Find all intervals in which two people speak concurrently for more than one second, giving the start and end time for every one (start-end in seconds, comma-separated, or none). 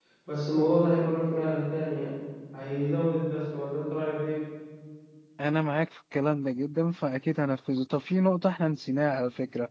none